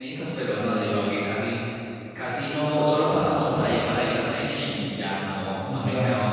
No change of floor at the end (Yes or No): Yes